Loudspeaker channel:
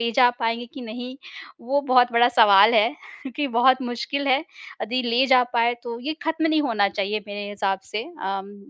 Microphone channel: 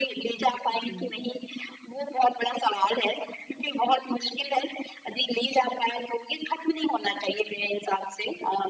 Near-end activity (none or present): present